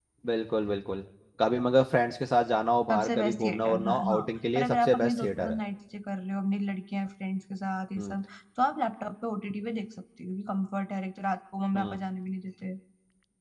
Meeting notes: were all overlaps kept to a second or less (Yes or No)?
No